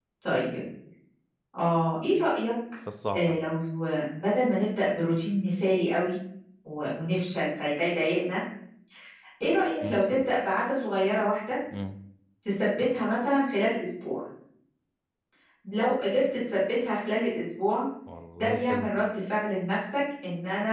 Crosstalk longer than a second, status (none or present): none